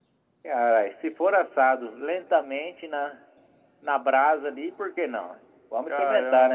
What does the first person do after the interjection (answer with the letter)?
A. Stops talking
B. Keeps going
A